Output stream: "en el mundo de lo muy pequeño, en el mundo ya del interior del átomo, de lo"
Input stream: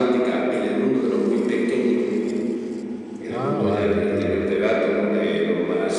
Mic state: both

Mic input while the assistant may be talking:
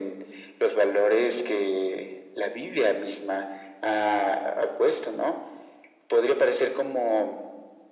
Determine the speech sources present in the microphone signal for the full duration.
echo only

